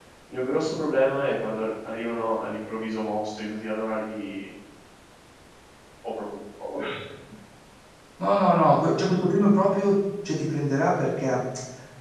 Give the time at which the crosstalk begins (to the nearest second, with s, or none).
none